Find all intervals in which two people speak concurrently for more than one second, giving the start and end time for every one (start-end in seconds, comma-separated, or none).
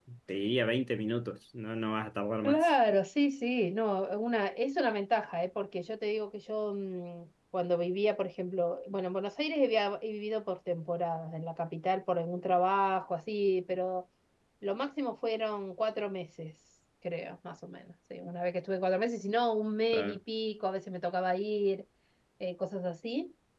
none